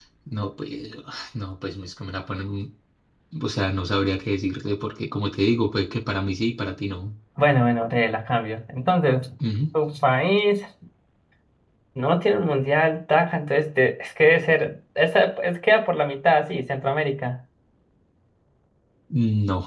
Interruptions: none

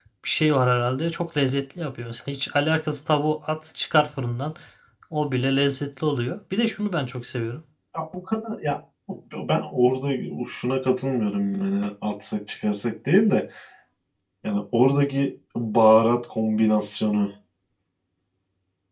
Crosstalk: none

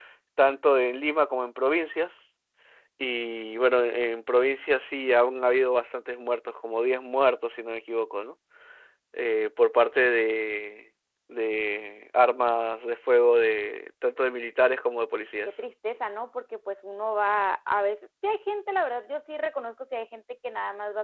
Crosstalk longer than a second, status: none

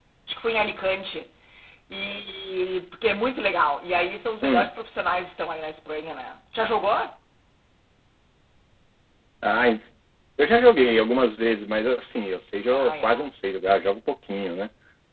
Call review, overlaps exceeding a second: none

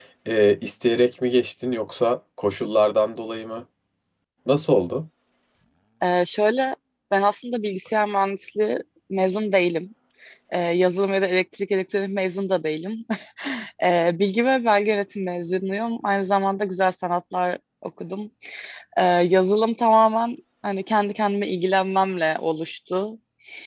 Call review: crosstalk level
none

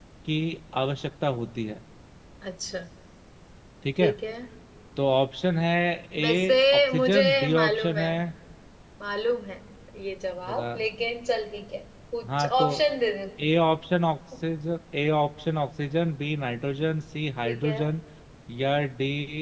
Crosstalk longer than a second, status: present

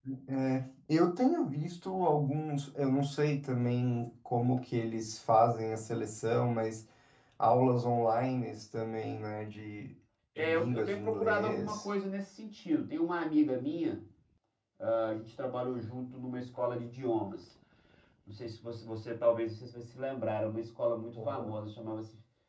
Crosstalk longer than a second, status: present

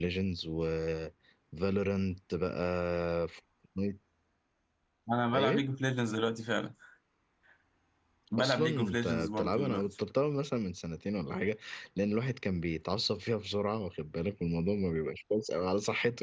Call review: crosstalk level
present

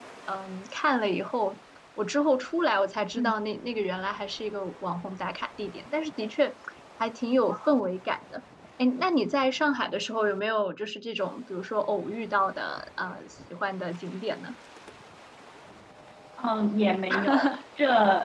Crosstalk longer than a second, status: none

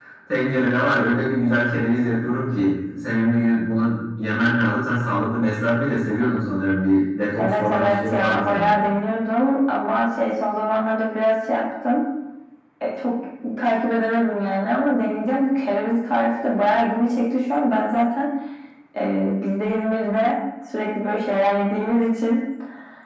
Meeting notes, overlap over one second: present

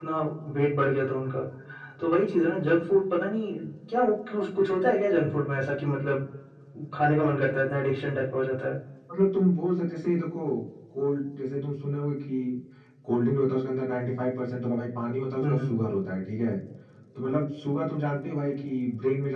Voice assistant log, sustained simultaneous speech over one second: none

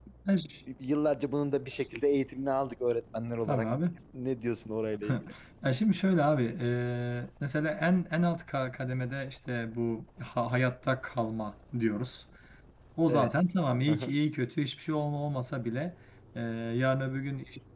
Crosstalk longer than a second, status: none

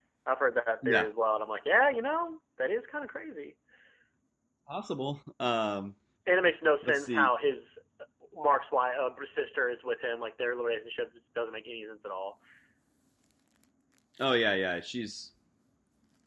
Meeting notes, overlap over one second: none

